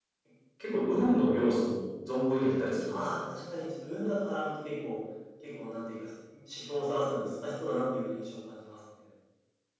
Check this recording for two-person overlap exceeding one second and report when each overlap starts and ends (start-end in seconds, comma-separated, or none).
none